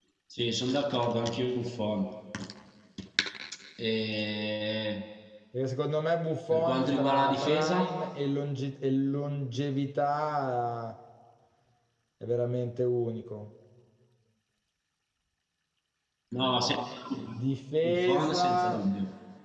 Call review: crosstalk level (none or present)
present